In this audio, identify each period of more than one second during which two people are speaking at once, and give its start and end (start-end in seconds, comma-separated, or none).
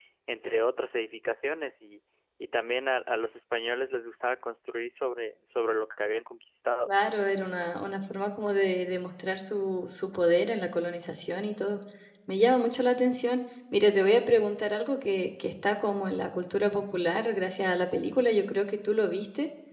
none